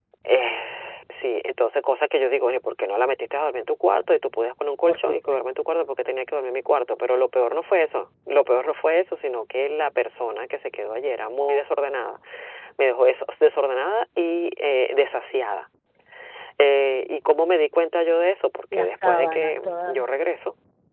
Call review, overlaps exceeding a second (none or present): present